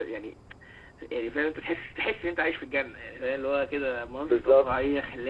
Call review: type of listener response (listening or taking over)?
listening